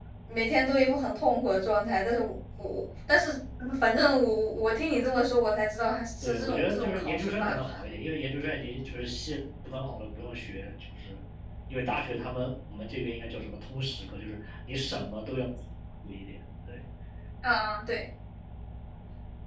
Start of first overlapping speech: 6.2 s

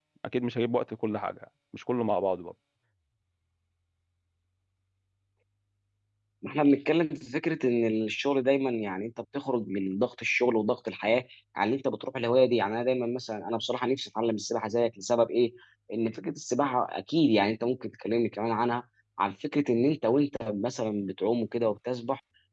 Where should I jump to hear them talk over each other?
none

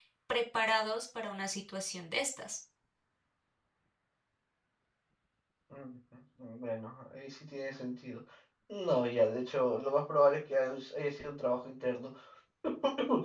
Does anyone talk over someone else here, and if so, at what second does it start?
none

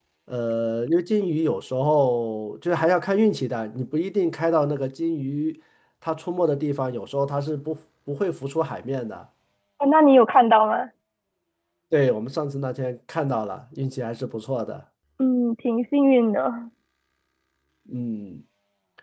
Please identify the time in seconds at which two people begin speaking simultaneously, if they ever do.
none

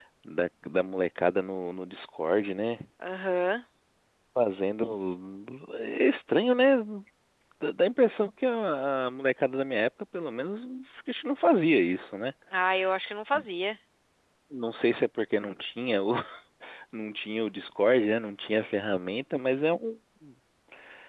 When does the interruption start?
none

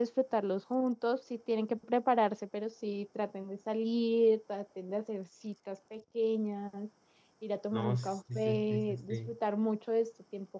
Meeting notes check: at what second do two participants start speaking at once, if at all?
7.7 s

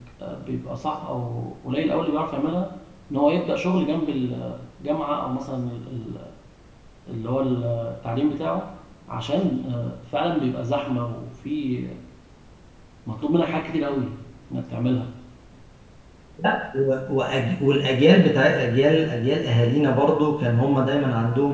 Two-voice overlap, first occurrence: none

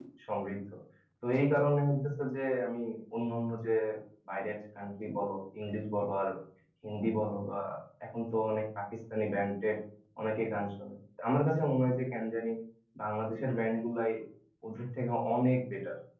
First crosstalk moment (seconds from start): none

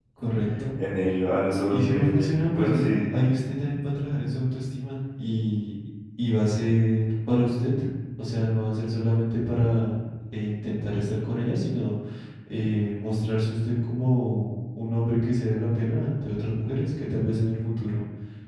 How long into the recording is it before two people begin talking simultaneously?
1.7 s

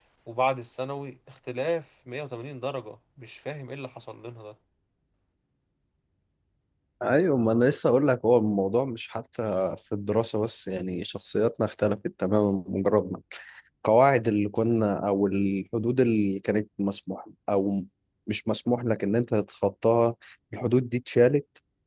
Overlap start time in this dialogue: none

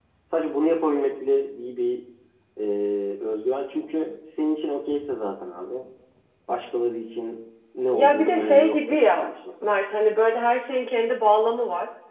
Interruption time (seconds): 7.9 s

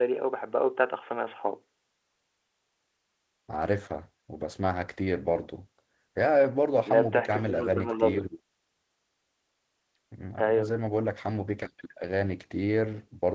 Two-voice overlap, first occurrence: 6.9 s

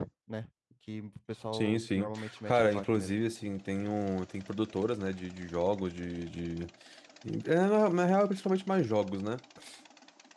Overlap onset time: 1.5 s

